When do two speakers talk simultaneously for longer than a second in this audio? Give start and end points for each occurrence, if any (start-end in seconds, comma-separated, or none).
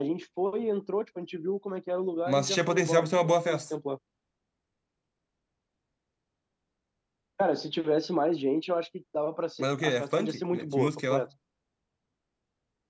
2.3-3.7, 9.6-11.2